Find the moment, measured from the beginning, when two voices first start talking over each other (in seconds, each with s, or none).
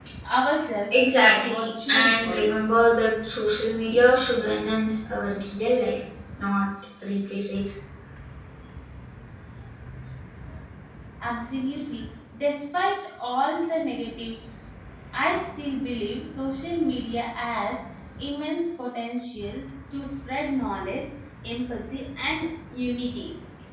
1.1 s